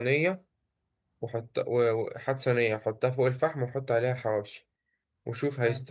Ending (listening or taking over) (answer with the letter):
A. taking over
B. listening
B